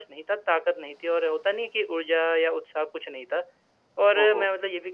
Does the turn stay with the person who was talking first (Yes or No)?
Yes